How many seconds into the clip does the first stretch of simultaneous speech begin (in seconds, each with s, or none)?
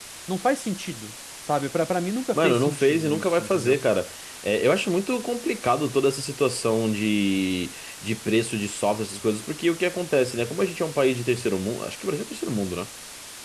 2.3 s